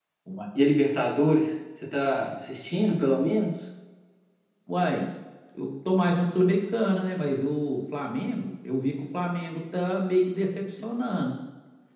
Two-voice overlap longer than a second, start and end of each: none

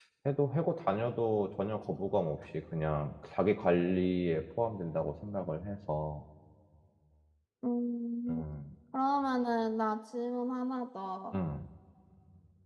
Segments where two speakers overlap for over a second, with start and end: none

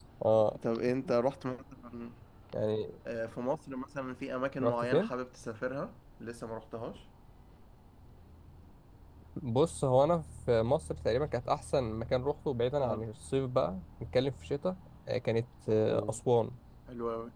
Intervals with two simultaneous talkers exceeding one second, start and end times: none

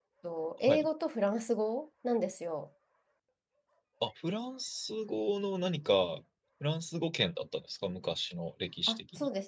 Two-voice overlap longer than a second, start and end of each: none

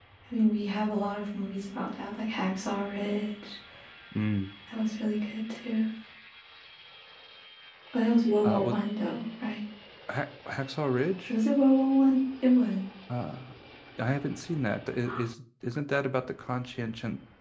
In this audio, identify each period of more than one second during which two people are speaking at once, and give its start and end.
none

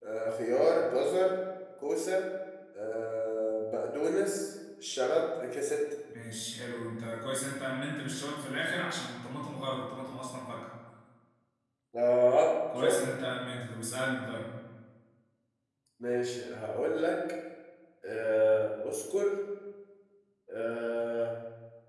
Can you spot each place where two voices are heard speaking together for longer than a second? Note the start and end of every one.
none

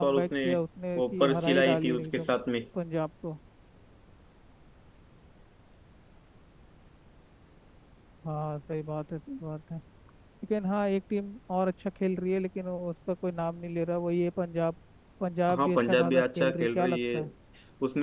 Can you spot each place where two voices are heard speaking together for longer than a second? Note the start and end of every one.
1.0-2.3, 15.5-17.2

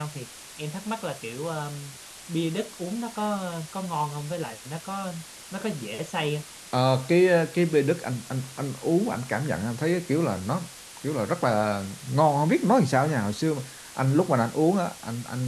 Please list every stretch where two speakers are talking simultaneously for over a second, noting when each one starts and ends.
none

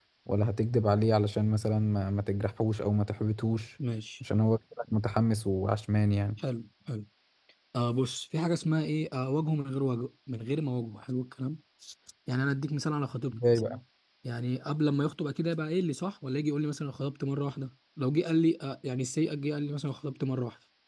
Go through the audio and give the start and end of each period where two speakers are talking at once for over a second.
none

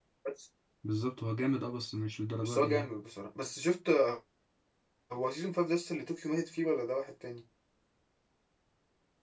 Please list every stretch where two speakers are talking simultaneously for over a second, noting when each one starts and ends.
none

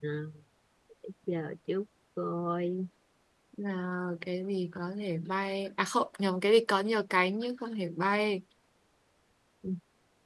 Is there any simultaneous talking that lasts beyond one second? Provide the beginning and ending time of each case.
none

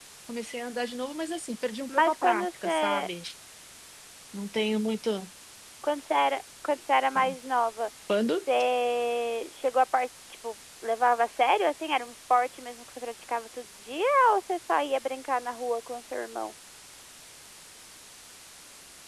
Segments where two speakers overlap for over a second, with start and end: 1.9-3.1

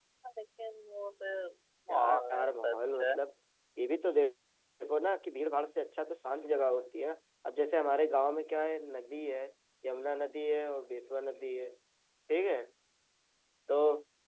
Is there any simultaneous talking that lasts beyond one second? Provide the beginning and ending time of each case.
1.9-3.2

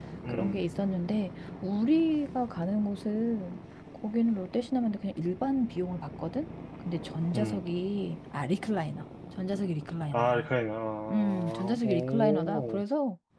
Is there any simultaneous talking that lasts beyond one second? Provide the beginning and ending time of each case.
11.1-12.8

